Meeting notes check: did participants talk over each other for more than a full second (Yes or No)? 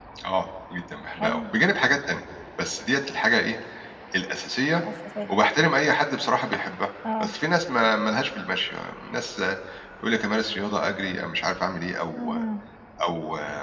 No